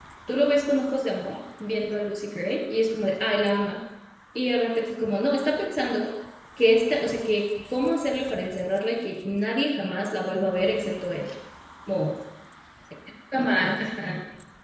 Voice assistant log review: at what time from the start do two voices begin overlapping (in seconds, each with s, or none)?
none